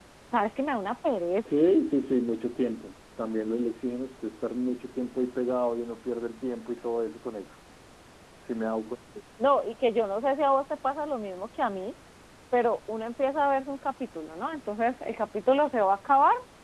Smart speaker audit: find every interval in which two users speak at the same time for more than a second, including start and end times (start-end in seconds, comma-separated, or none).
none